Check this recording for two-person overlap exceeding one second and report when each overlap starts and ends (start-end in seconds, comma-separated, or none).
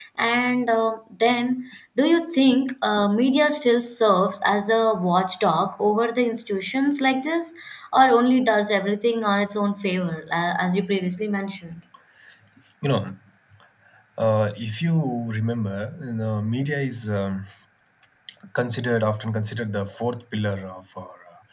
none